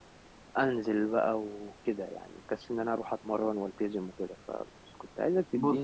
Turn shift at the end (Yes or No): No